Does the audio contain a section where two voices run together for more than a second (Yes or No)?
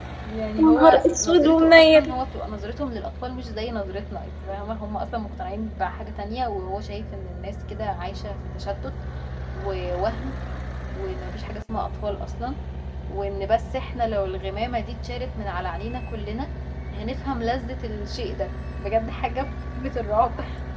Yes